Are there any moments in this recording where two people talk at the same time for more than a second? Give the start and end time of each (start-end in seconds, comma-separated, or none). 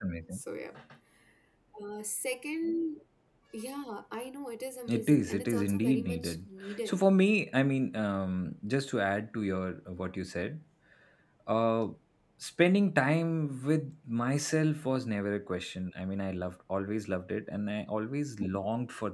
4.9-6.5